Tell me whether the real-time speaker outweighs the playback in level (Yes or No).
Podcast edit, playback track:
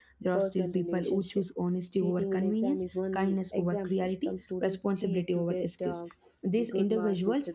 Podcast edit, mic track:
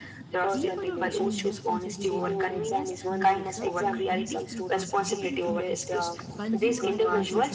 No